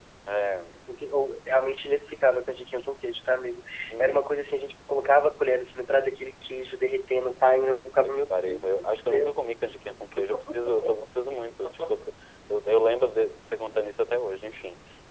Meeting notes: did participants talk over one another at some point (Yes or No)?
Yes